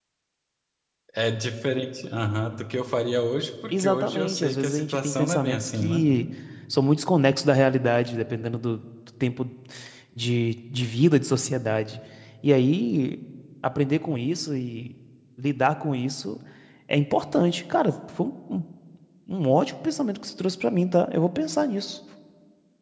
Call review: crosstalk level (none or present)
present